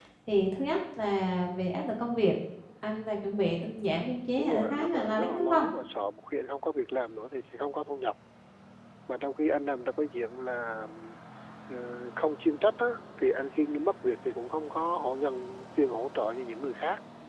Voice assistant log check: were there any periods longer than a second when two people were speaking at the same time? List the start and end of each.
4.4-5.7

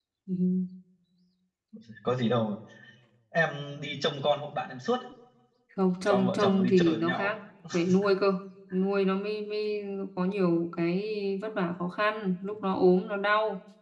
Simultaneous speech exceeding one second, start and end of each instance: 6.1-7.3

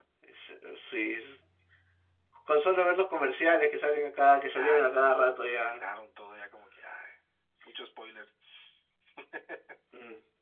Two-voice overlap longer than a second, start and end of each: 4.5-5.8

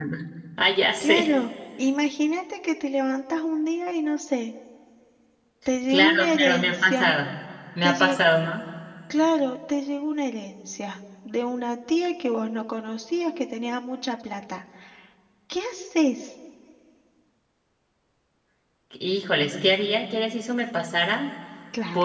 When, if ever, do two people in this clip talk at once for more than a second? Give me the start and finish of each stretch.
5.9-7.1

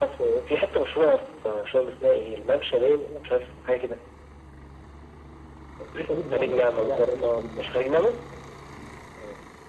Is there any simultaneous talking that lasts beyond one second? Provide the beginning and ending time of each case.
6.3-7.8

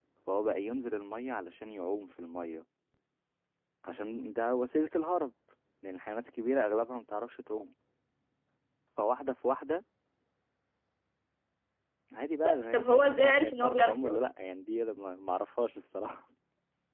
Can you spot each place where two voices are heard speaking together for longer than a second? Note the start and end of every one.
12.4-14.2

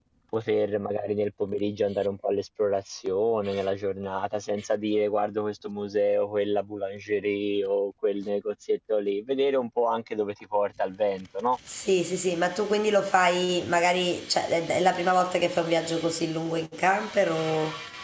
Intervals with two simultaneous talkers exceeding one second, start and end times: none

